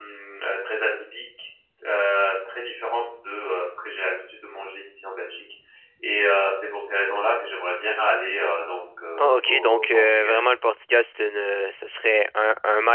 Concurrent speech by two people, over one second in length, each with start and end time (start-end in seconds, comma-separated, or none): 9.2-10.4